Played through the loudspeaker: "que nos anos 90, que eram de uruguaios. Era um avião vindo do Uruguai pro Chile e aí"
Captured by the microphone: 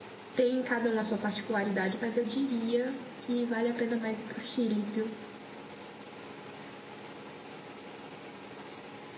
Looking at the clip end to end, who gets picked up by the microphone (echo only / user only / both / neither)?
user only